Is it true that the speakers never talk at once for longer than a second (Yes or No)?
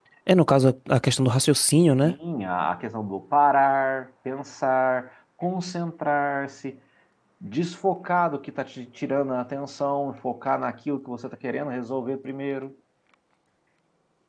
Yes